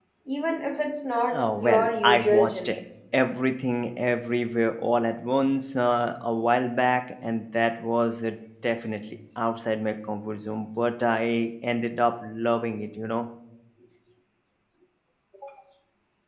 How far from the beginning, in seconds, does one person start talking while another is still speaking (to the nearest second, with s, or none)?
1 s